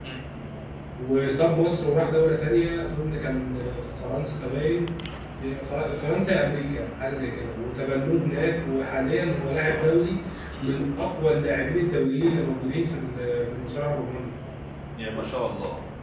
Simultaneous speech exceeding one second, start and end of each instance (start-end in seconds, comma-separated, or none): none